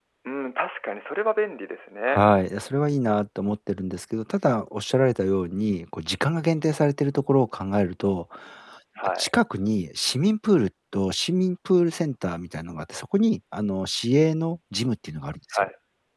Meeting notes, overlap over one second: none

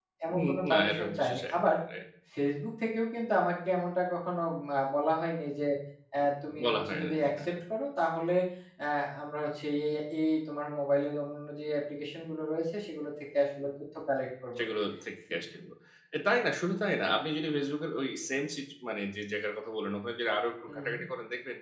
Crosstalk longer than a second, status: present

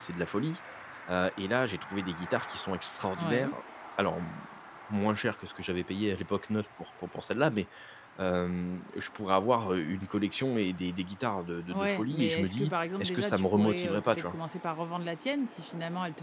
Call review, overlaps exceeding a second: present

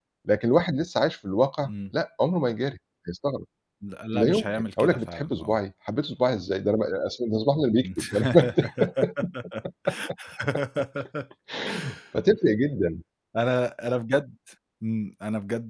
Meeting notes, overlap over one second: present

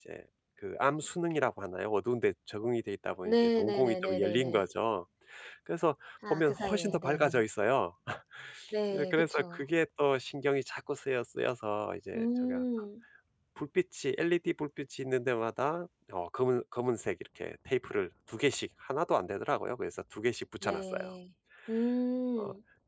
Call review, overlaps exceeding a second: present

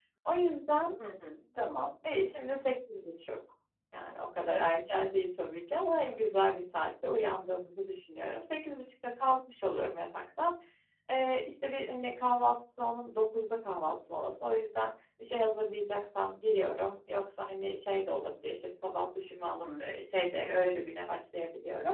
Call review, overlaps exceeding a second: none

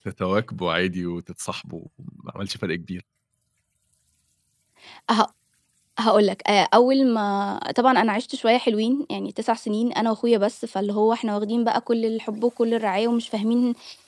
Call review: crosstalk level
none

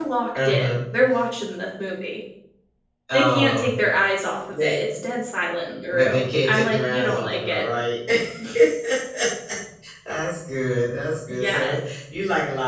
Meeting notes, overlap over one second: present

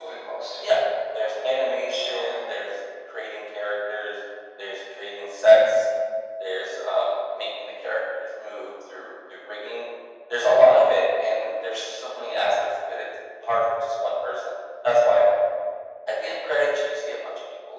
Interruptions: present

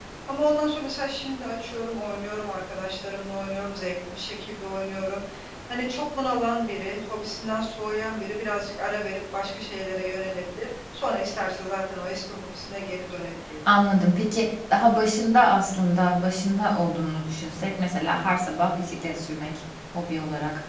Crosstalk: none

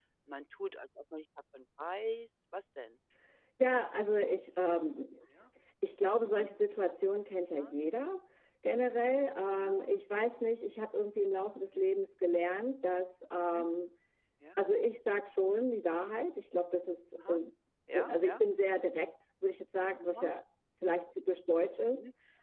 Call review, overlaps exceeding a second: none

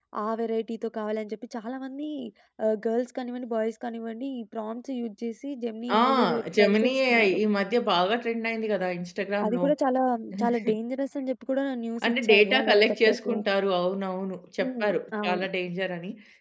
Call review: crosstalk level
present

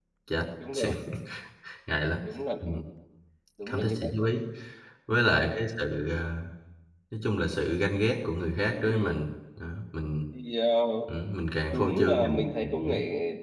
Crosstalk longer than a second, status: present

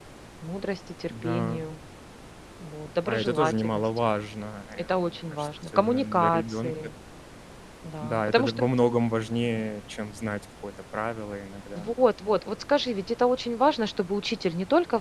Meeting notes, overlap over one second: present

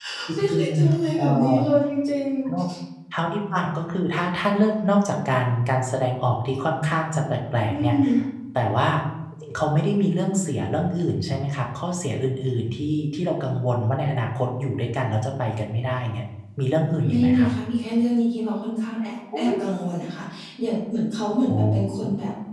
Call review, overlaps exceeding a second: present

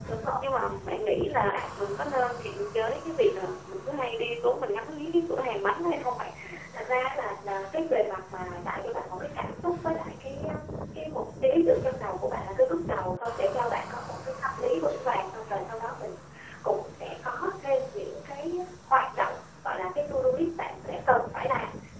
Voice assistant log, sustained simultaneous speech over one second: none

